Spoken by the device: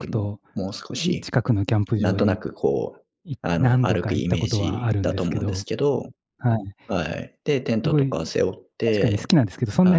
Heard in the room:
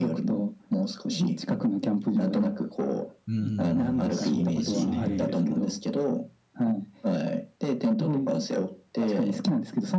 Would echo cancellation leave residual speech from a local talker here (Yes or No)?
Yes